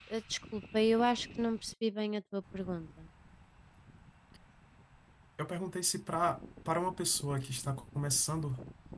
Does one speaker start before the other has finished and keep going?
No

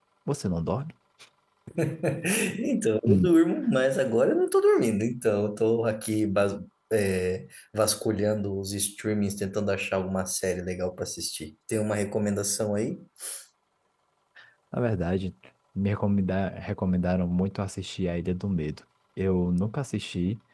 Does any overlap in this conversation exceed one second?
No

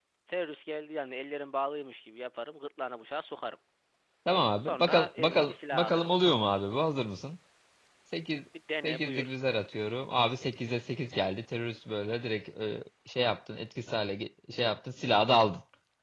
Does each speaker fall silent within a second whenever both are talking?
No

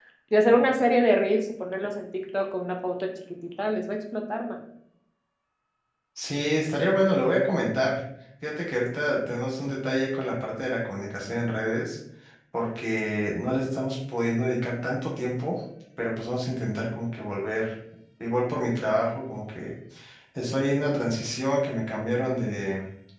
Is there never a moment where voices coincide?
Yes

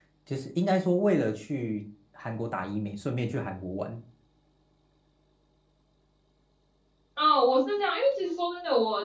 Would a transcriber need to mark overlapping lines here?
No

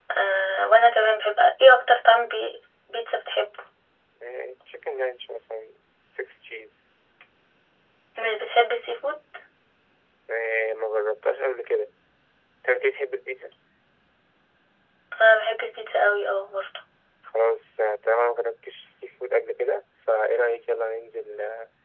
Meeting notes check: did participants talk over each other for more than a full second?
No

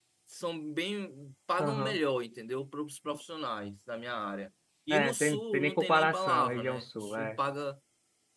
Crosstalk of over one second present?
Yes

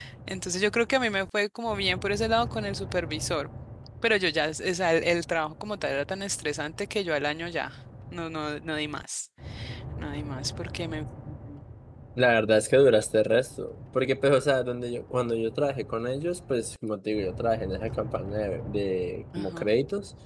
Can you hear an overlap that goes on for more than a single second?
No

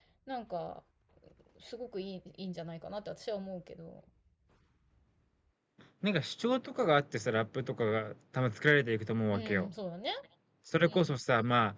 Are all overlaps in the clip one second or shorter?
Yes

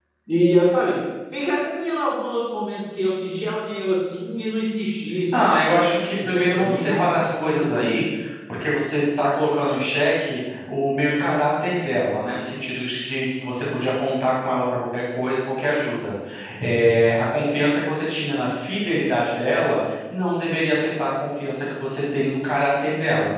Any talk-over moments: Yes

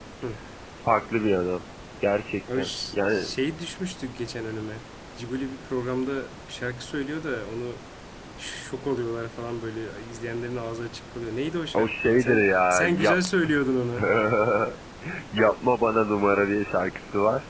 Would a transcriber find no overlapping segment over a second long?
No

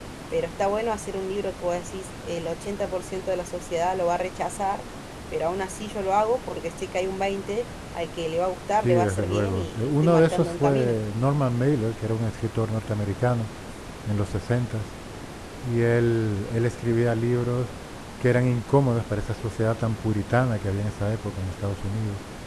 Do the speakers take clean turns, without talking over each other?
No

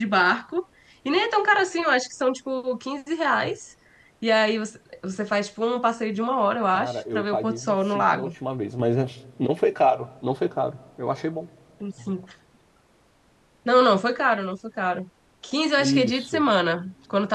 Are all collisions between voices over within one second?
No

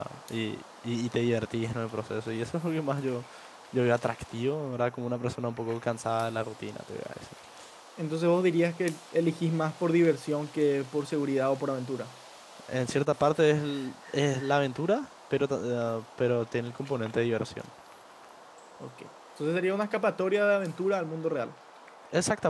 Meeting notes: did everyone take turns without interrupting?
Yes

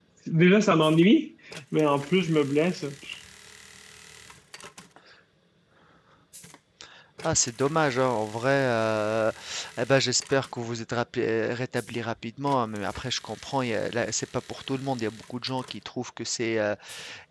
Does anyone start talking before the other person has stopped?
No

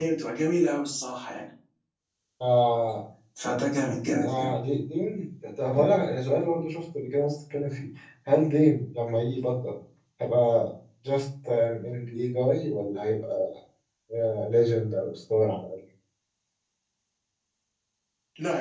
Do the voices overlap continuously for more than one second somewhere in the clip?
No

